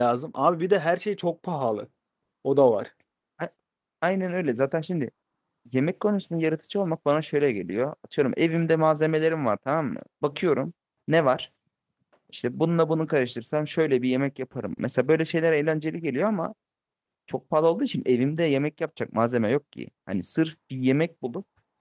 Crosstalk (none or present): none